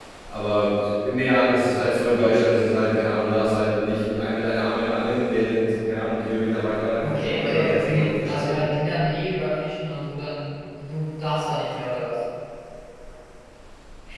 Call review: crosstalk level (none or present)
present